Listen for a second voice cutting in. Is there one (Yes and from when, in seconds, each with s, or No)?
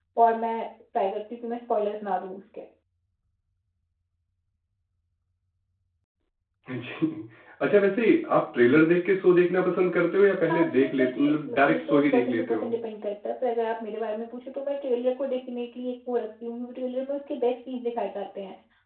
Yes, from 10.4 s